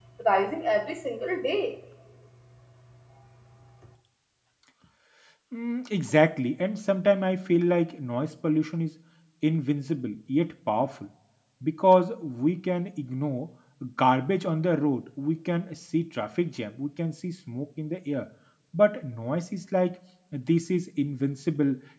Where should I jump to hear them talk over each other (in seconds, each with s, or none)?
none